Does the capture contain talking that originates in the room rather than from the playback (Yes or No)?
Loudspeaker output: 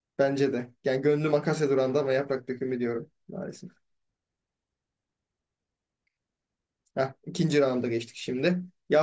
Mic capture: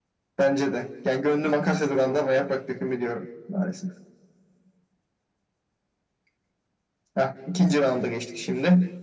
No